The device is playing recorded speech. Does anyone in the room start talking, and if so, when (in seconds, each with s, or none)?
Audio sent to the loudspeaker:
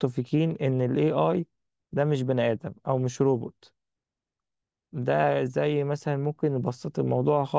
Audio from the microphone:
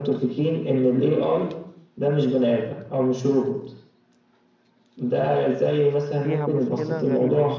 6.2 s